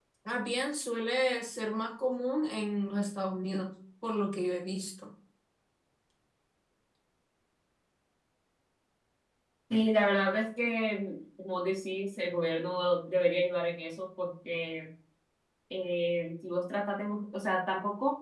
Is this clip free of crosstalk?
Yes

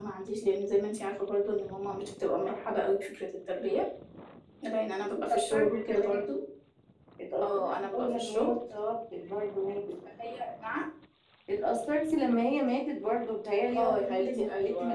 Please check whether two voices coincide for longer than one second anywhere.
Yes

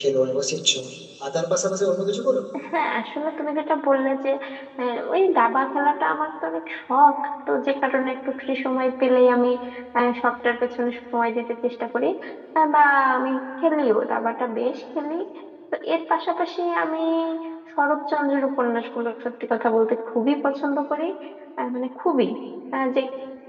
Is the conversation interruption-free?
Yes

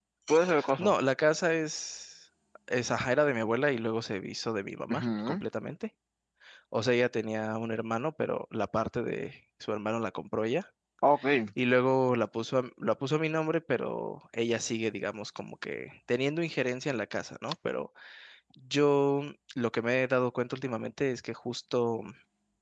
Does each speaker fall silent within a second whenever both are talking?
Yes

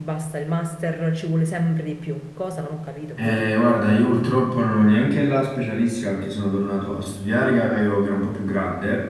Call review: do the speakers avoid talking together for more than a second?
Yes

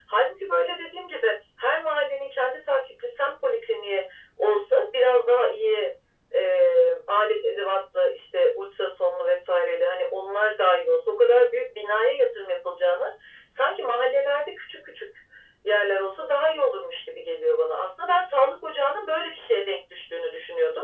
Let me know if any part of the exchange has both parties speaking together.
No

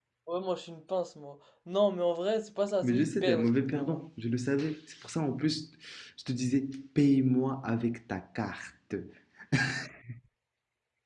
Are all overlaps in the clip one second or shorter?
No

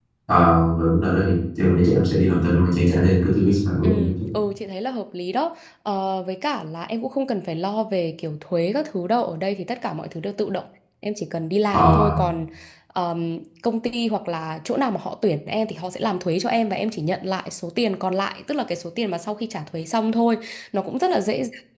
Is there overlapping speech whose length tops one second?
No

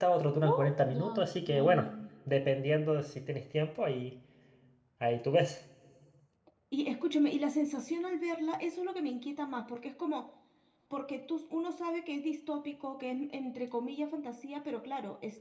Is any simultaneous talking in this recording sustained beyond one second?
Yes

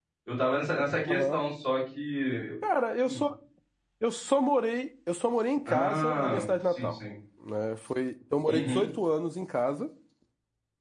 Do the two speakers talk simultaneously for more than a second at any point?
Yes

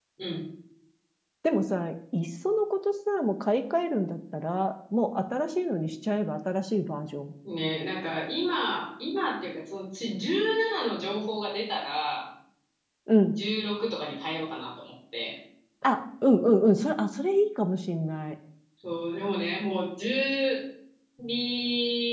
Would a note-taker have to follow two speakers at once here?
No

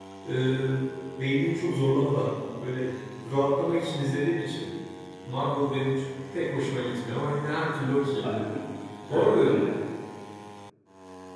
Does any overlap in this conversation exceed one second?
No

